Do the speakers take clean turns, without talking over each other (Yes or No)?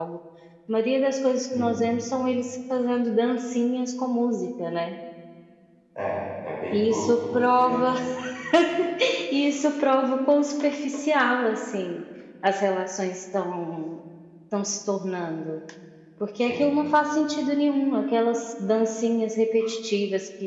No